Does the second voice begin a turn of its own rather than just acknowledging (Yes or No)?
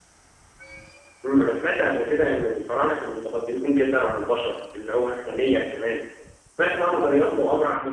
No